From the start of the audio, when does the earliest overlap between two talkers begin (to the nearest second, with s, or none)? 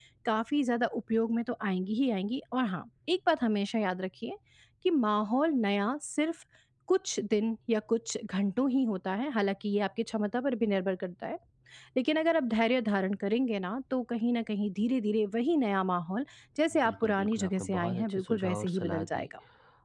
17 s